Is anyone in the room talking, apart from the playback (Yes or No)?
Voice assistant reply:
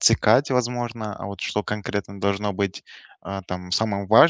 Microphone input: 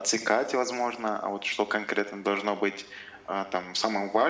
No